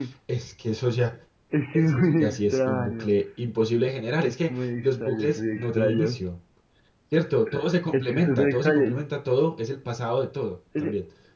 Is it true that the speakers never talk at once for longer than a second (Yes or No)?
No